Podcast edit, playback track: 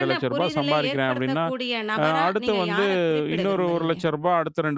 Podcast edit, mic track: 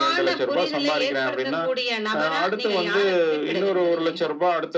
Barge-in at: none

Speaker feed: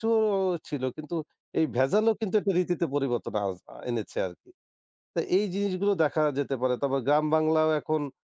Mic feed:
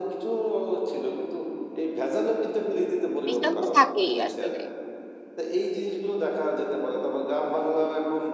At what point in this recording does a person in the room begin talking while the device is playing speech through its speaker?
3.2 s

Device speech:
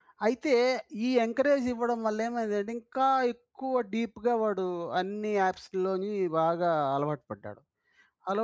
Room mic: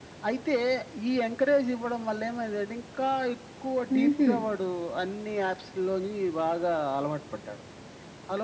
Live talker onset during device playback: 3.9 s

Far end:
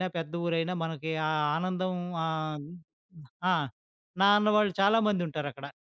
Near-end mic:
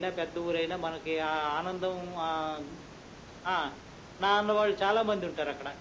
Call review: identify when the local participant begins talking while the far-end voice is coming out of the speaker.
none

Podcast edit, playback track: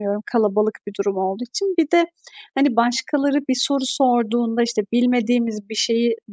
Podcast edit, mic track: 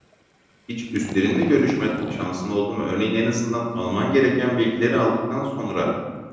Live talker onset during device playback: 0.7 s

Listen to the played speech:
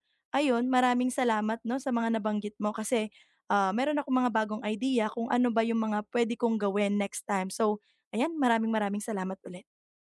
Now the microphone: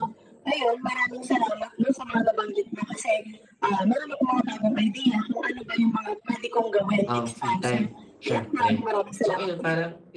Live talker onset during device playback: 7.1 s

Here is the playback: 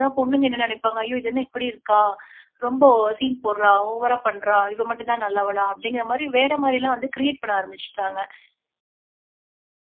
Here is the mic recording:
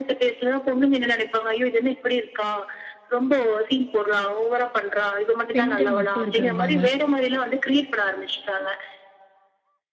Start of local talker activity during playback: 5.5 s

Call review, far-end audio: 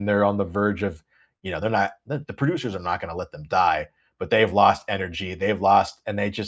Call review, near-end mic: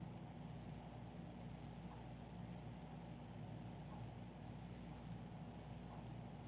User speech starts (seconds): none

